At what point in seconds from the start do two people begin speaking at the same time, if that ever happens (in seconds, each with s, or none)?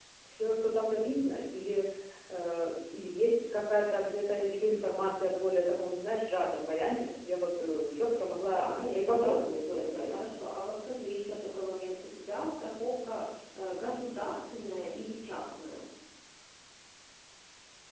8.5 s